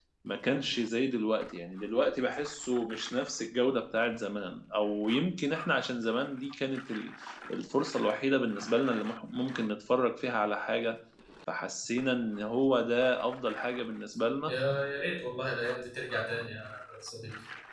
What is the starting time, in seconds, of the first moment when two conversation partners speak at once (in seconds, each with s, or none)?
none